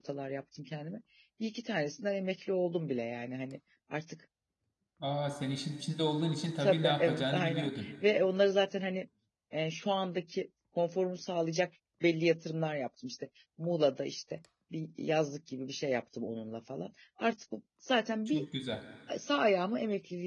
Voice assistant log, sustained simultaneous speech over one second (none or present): present